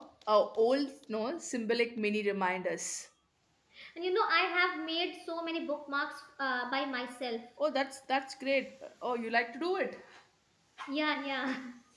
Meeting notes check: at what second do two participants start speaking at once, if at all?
none

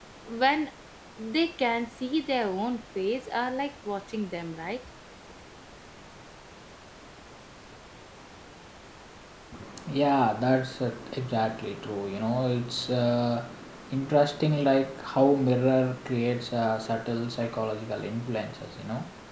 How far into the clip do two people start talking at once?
none

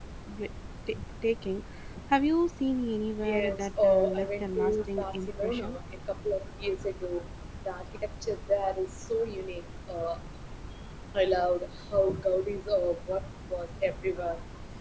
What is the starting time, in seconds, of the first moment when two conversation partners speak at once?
3.2 s

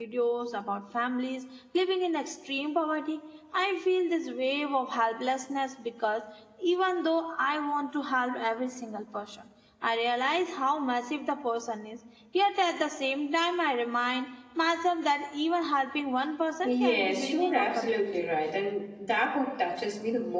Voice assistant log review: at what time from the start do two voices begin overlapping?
16.6 s

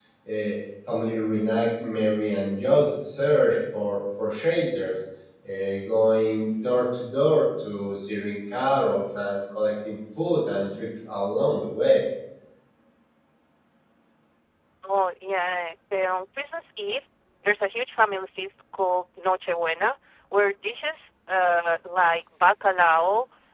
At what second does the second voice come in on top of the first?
none

